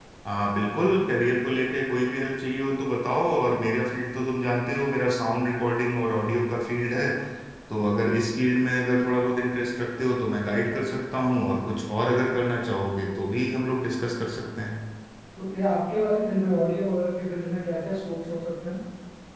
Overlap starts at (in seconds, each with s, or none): none